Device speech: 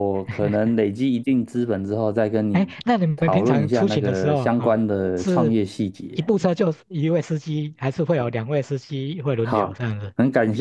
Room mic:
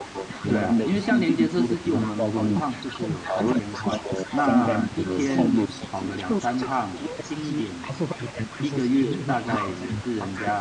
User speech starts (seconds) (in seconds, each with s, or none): 0.5 s